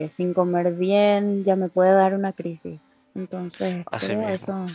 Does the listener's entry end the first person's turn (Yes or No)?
Yes